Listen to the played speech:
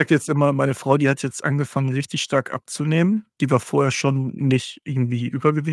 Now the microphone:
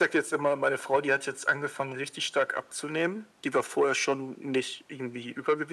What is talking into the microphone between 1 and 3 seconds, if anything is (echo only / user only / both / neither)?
echo only